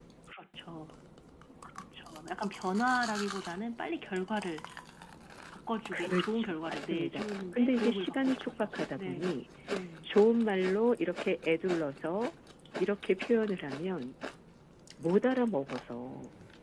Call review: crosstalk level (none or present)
present